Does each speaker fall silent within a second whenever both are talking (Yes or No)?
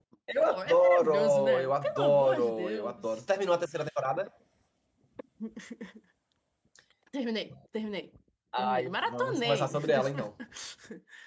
No